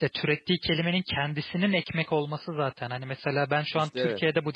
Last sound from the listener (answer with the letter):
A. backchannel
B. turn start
A